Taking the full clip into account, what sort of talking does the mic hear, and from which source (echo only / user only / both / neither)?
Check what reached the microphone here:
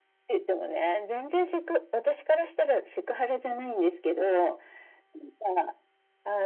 echo only